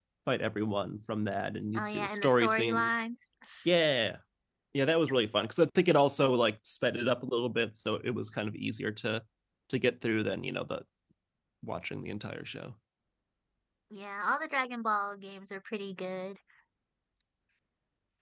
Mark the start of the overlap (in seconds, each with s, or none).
1.8 s